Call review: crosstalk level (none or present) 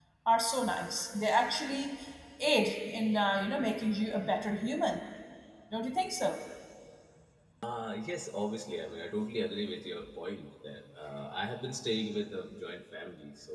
none